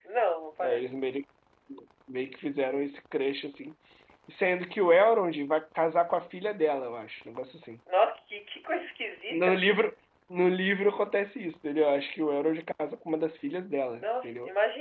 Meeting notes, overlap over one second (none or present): none